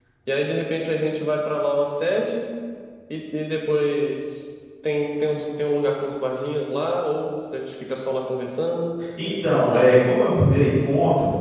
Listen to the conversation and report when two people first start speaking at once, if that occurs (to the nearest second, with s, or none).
none